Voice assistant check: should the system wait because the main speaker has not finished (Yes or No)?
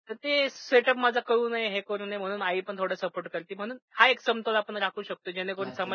No